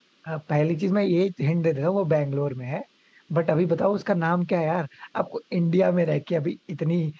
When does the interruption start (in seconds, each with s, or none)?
none